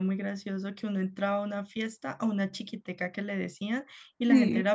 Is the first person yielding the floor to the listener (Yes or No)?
No